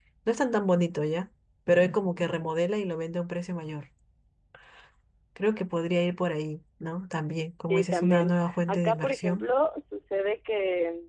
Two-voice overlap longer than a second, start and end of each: 7.7-9.4

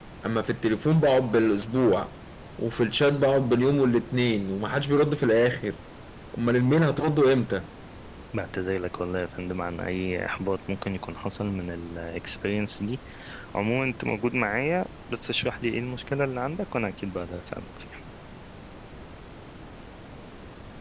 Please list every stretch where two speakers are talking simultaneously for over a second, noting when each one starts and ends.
none

